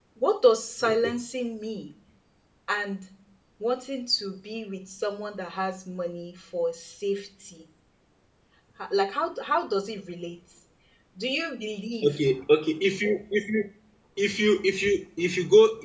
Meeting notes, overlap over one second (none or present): none